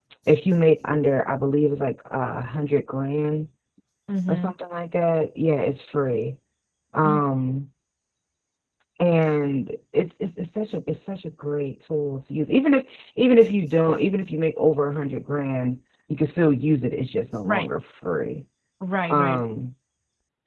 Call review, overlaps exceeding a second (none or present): none